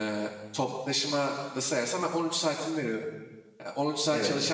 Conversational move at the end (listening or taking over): listening